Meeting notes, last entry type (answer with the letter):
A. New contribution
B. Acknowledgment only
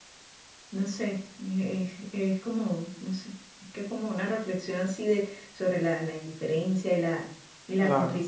B